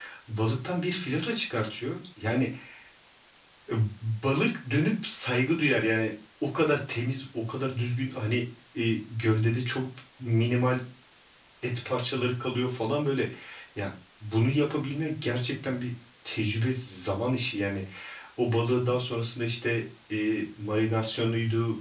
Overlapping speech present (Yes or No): No